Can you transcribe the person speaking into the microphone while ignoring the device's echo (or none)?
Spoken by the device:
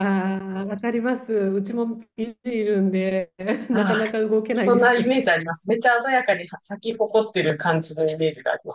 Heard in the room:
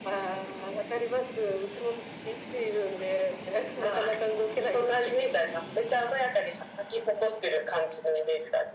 none